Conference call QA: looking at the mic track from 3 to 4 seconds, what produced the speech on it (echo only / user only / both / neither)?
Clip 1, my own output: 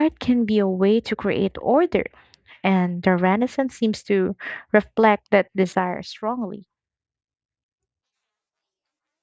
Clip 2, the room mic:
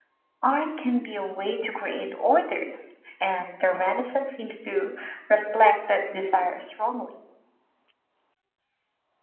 echo only